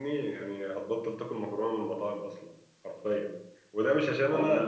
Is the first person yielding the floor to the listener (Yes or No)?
No